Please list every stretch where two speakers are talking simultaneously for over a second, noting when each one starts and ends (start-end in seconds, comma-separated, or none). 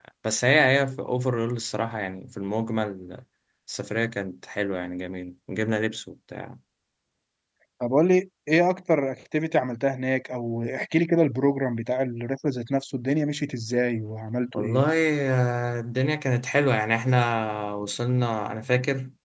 none